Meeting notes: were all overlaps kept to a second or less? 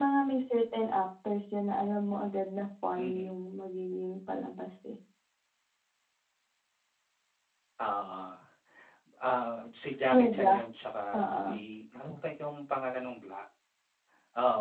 Yes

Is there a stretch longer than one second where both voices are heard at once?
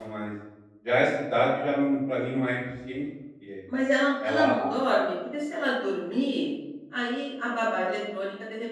No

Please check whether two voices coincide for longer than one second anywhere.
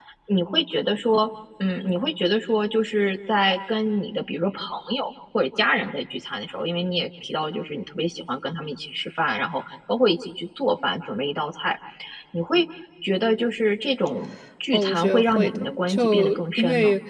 Yes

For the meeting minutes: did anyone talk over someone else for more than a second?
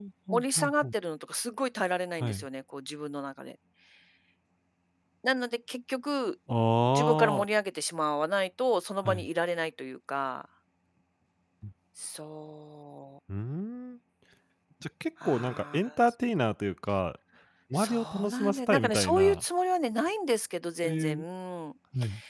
Yes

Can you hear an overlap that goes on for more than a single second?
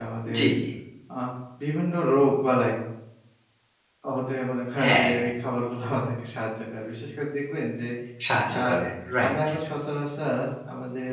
No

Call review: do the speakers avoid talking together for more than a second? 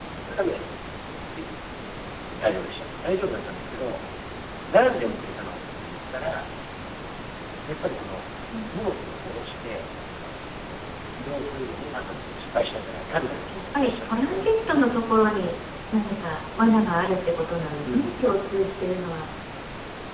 No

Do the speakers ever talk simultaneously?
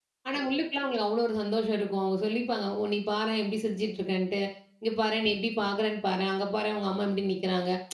No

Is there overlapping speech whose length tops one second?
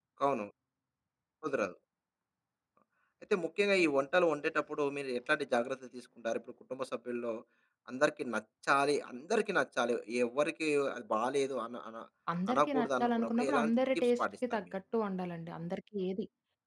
Yes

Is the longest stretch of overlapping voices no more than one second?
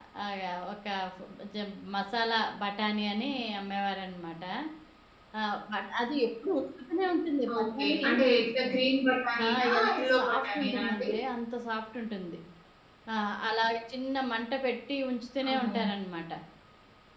No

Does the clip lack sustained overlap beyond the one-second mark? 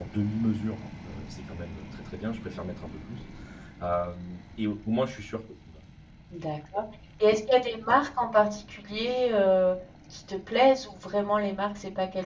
Yes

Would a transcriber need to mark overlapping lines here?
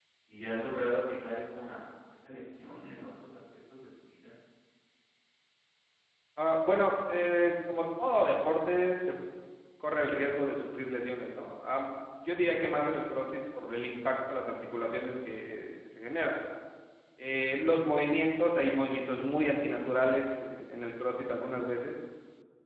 No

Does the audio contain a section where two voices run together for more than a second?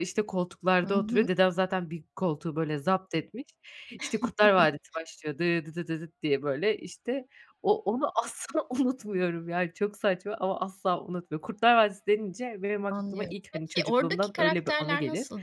Yes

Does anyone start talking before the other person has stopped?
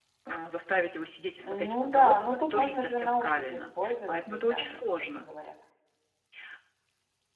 Yes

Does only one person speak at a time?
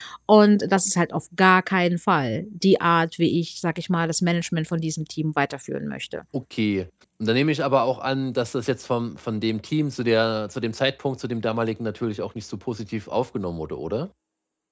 Yes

